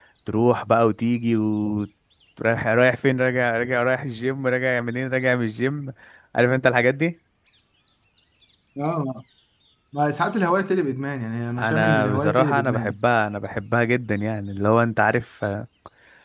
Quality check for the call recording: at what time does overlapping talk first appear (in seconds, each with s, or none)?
11.6 s